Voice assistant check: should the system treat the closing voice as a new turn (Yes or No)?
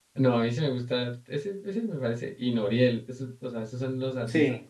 No